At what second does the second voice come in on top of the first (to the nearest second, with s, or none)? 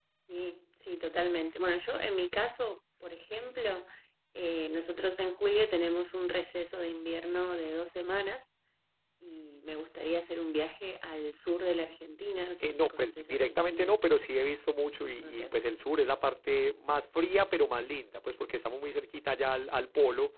13 s